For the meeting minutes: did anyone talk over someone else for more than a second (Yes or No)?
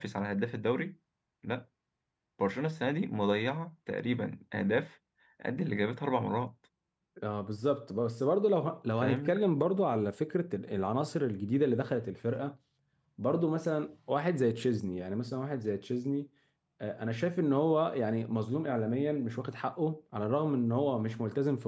No